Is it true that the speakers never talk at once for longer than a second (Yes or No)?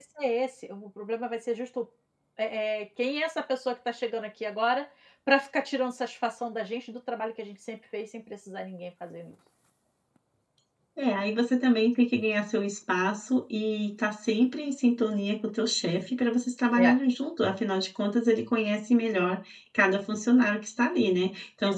Yes